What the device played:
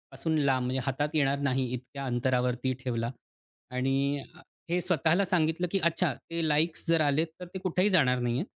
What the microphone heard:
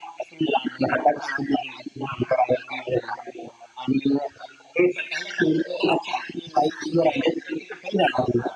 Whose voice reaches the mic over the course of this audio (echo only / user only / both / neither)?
echo only